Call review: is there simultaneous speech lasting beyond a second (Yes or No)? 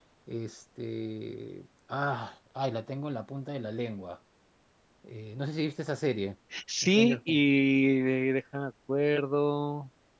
No